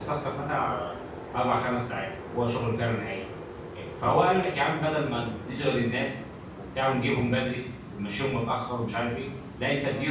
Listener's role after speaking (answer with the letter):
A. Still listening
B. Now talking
A